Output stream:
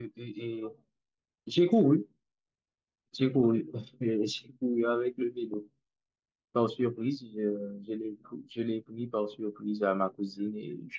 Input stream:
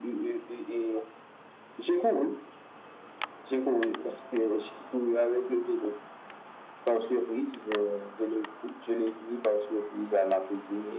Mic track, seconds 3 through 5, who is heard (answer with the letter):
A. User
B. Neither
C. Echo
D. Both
C